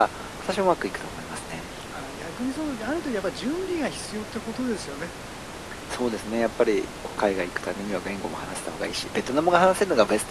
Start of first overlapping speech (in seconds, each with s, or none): none